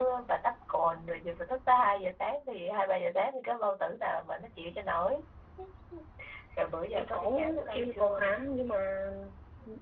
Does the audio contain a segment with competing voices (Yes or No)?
Yes